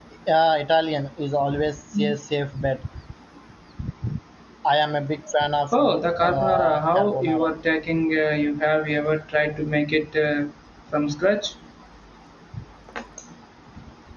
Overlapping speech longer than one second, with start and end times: 5.7-7.5

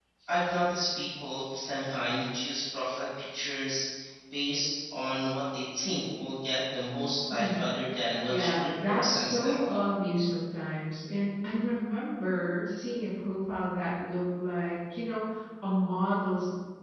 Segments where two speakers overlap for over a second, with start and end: 8.3-9.6

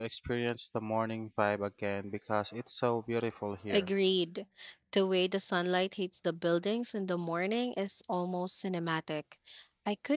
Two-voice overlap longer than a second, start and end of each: none

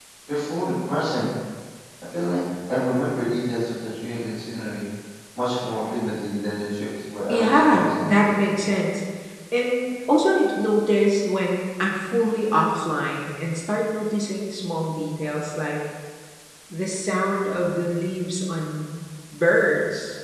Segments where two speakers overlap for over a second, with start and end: 7.3-8.8

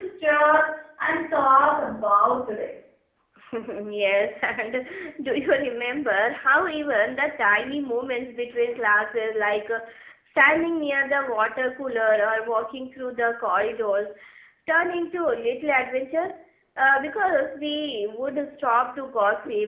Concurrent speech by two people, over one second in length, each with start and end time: none

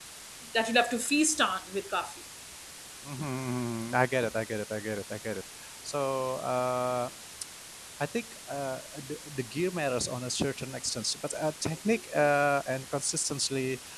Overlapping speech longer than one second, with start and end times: none

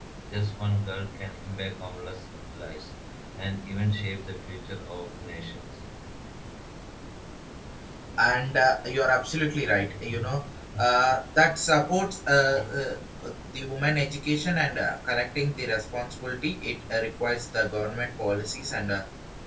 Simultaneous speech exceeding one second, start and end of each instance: none

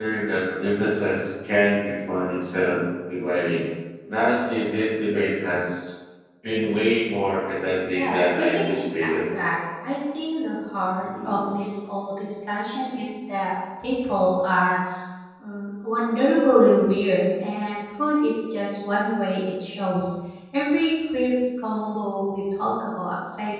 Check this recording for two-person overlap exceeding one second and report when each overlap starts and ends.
7.9-9.1

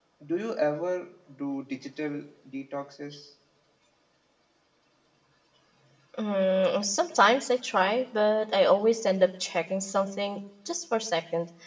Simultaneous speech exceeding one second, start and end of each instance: none

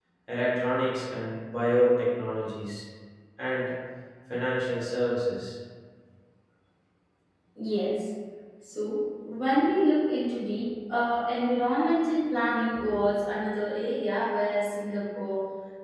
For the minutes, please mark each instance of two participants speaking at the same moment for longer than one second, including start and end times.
none

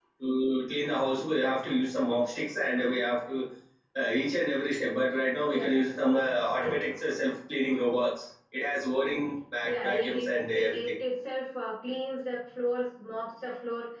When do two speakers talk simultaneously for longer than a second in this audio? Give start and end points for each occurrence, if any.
9.6-11.0

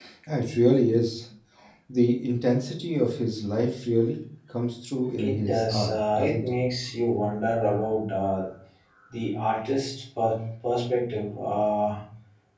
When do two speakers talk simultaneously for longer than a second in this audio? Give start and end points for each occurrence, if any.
5.2-6.6

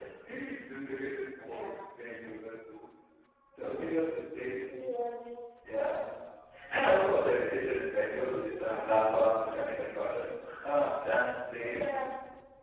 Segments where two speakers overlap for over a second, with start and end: none

